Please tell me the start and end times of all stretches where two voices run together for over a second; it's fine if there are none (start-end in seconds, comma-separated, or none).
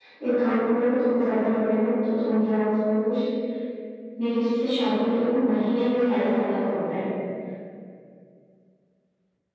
none